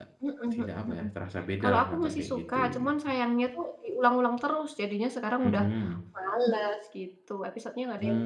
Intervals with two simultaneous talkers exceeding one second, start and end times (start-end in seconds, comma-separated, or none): 1.6-2.9